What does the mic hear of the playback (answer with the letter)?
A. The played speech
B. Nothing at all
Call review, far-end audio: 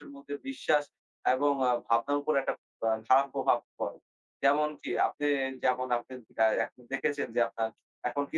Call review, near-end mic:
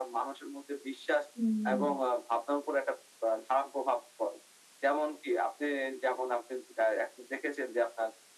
A